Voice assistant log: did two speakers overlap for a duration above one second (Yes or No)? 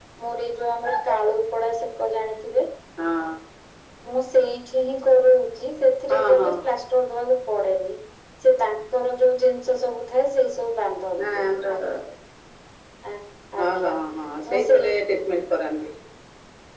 No